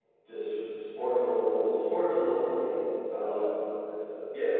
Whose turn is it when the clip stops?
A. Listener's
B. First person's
A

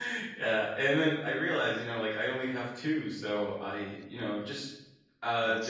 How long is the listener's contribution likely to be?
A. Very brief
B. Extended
A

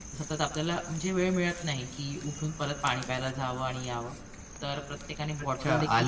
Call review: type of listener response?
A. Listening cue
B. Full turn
B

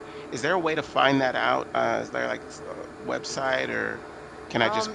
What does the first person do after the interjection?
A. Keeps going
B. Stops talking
B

